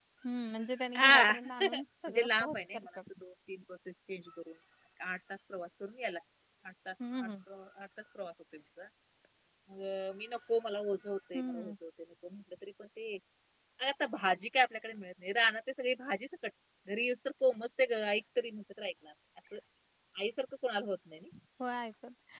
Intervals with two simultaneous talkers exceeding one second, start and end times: 0.9-2.9

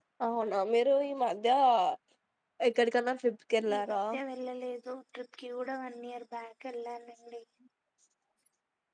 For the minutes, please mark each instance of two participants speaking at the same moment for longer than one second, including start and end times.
none

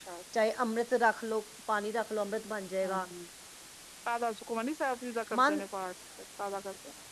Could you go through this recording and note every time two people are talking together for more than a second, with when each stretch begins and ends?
none

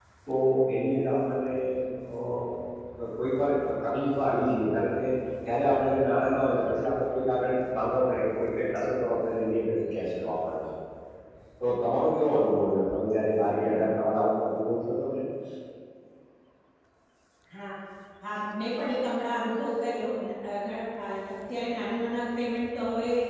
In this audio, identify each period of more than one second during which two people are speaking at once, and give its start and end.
none

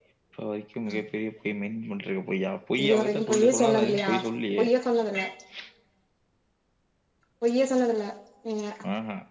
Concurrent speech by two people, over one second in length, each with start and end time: 2.8-4.1

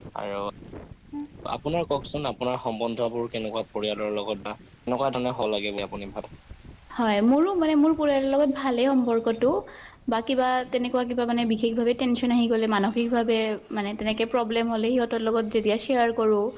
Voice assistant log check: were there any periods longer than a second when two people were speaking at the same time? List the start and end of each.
none

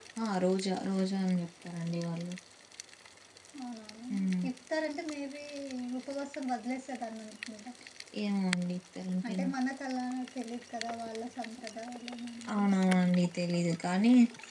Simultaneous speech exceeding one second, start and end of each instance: none

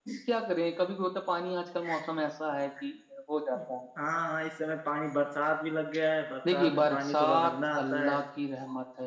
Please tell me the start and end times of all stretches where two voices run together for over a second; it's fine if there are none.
6.5-8.2

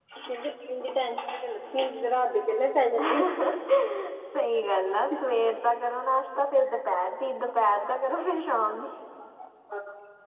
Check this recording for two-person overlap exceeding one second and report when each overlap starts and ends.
none

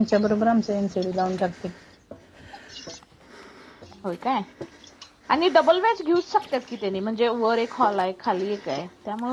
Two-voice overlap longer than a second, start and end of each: none

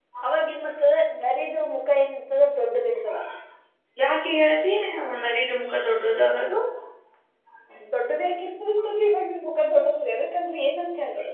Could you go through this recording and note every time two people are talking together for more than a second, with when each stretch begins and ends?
none

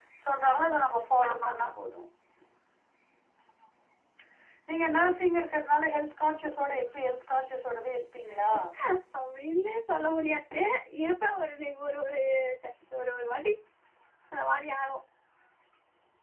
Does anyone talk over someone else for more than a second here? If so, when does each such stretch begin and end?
none

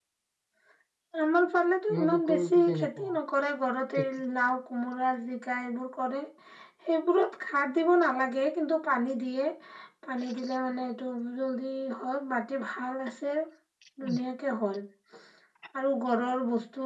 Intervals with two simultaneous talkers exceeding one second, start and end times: 1.9-3.1

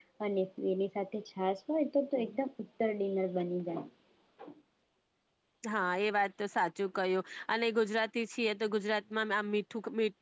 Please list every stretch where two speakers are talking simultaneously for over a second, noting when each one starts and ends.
none

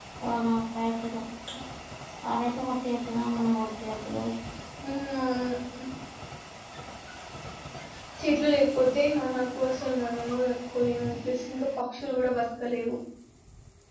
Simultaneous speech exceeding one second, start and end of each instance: none

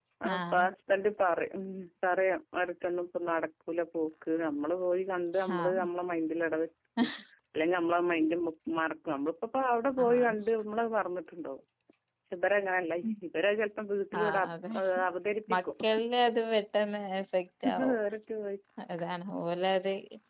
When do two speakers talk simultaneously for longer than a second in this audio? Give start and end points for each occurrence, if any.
none

